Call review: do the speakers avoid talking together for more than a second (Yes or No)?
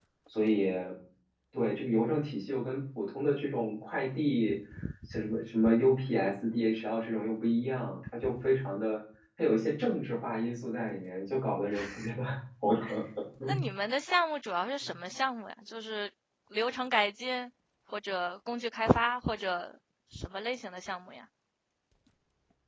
Yes